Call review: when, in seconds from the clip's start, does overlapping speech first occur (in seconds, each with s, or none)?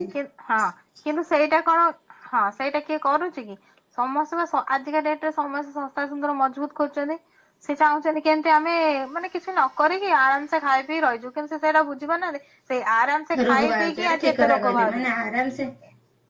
13.3 s